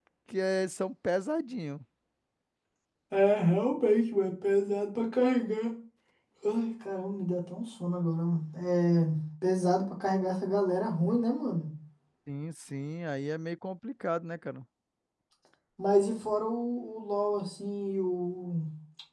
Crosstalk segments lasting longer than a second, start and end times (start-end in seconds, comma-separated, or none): none